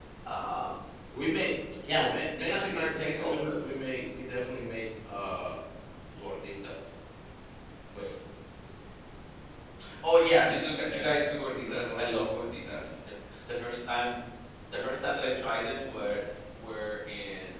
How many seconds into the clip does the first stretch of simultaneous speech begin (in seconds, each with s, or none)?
1.8 s